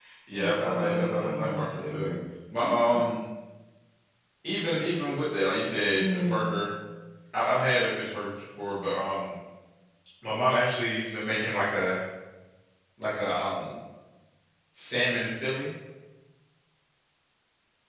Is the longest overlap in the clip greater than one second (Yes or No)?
Yes